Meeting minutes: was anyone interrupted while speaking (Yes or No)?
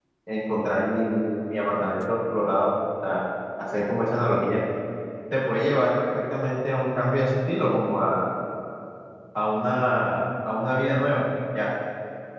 No